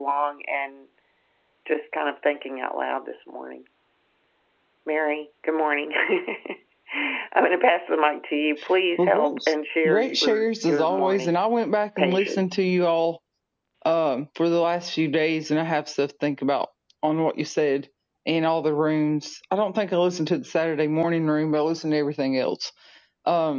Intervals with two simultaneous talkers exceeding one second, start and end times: 9.8-11.4

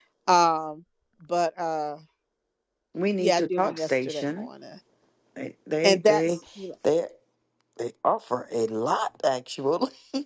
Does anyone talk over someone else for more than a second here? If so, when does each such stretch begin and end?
3.2-4.5

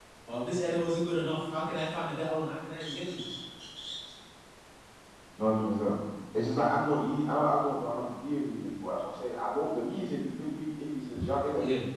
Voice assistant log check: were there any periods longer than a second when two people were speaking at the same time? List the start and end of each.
none

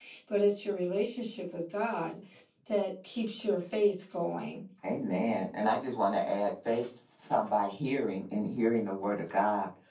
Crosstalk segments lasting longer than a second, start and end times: none

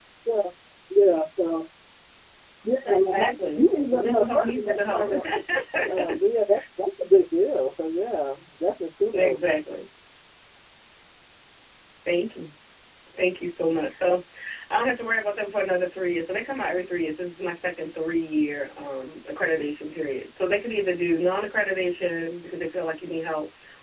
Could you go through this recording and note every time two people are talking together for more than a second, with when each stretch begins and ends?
2.8-5.2

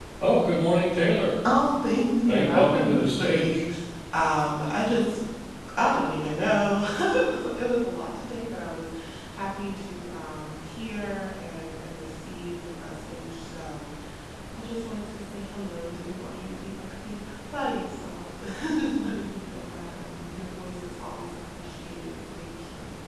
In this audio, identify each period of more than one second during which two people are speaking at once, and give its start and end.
2.3-3.6

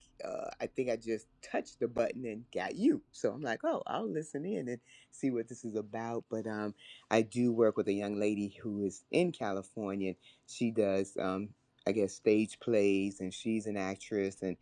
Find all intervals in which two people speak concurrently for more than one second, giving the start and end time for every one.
none

